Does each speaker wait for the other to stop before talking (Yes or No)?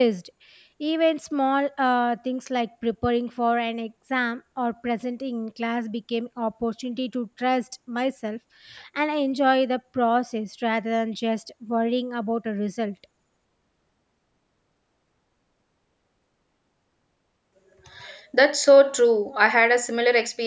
Yes